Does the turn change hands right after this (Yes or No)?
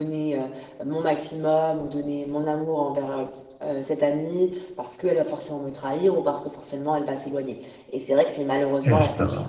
No